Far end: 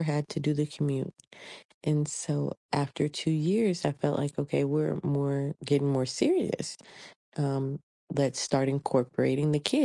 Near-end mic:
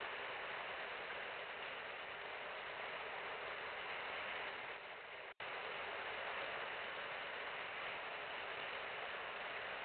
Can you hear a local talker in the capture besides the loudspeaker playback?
No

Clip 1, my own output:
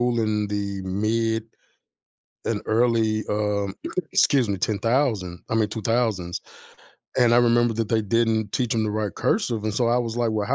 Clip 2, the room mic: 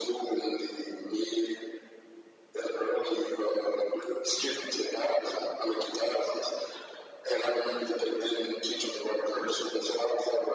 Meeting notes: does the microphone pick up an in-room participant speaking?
No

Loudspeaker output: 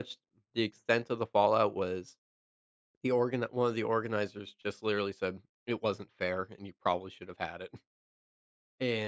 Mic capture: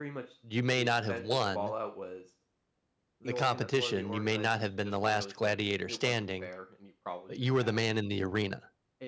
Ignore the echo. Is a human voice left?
Yes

